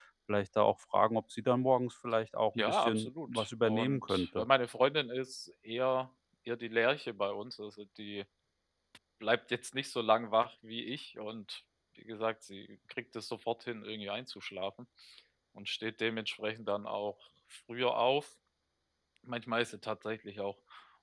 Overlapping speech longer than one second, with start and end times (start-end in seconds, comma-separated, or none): 2.6-4.4